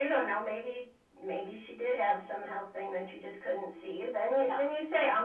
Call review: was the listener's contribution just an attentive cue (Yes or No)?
Yes